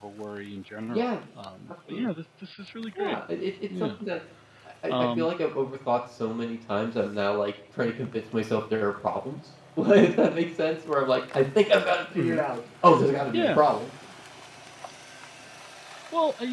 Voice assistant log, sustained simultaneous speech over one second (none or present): none